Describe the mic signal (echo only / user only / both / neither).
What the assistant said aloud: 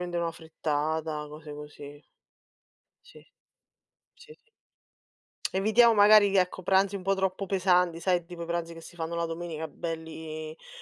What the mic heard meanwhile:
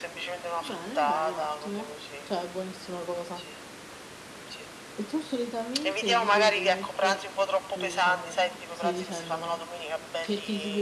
both